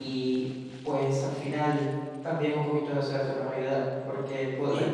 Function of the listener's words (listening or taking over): listening